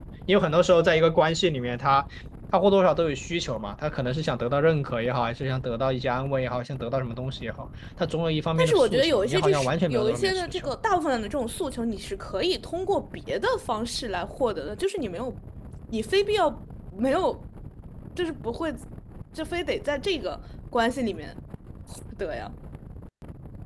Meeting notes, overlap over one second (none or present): present